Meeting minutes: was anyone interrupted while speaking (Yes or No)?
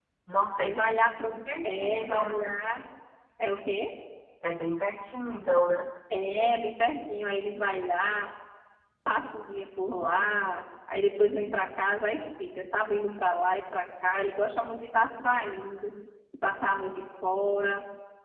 Yes